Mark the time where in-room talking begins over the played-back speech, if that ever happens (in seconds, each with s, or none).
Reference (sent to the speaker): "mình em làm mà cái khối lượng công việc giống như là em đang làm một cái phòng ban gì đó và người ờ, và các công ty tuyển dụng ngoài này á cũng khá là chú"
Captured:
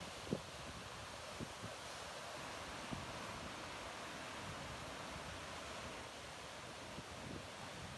none